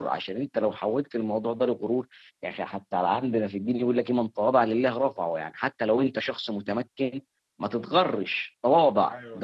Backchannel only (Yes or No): Yes